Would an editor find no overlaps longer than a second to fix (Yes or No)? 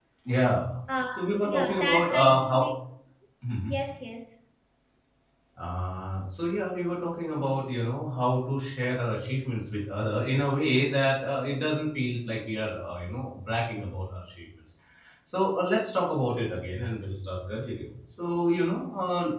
No